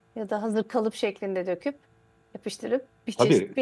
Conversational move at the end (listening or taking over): taking over